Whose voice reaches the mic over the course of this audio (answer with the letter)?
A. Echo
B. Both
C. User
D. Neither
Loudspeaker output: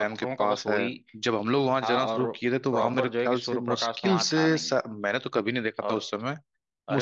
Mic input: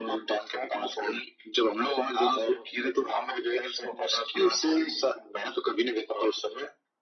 A